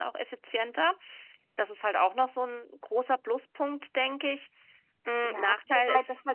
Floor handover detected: Yes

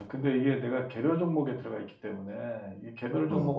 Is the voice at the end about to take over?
No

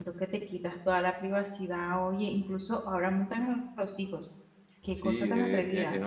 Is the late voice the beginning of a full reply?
Yes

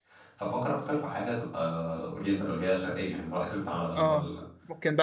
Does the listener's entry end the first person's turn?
Yes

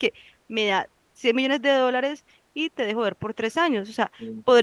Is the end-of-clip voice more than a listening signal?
No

